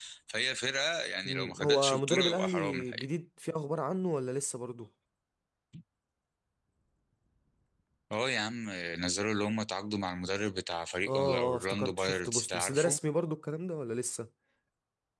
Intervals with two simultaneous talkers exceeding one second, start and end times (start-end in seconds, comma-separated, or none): 1.2-3.0, 11.1-13.0